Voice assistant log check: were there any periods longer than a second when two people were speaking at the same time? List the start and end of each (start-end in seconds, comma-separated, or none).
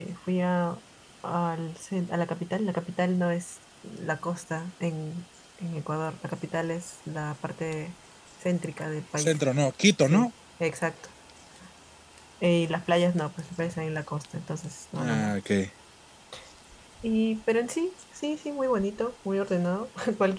none